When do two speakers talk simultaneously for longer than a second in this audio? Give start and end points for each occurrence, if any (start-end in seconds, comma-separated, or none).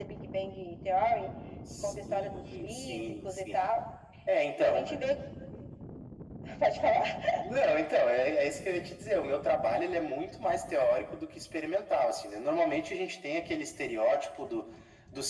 1.8-3.7